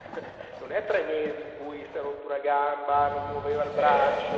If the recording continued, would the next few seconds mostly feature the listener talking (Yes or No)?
No